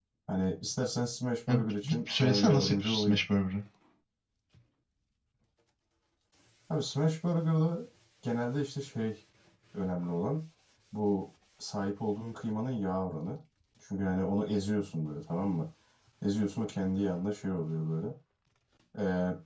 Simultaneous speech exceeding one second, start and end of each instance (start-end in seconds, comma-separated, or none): 1.5-3.2